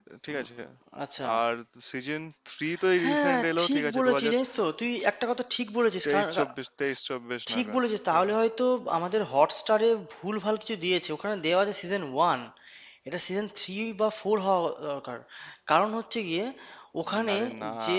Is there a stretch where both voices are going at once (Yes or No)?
Yes